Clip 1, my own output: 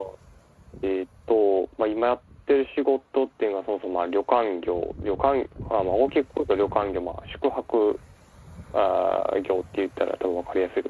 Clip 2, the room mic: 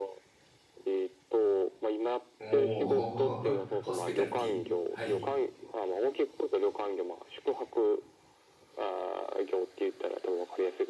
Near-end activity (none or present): present